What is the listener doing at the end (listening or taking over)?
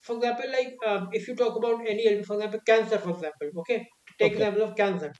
listening